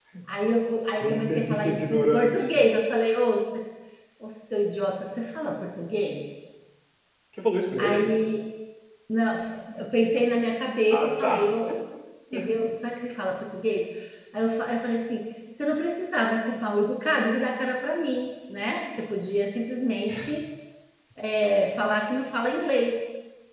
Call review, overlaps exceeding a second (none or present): present